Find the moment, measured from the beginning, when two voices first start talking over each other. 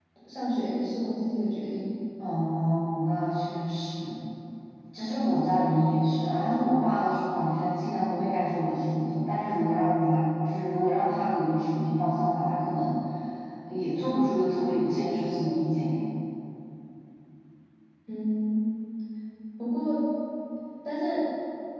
none

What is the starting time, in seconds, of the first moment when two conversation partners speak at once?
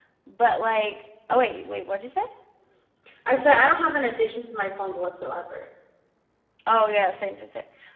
none

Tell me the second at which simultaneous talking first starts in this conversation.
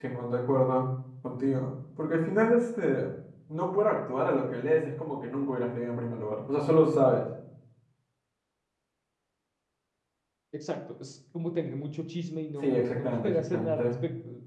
13 s

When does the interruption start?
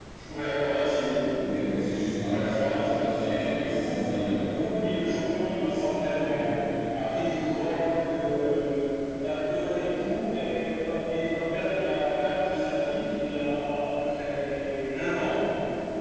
2 s

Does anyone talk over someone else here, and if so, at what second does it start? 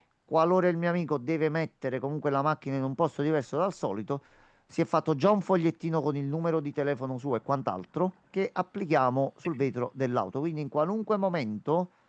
none

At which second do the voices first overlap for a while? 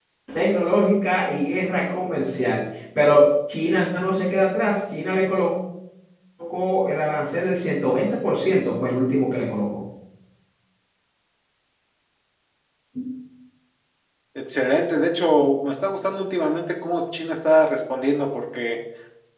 none

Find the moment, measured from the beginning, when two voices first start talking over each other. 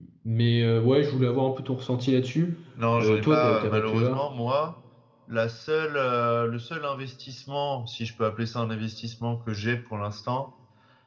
3 s

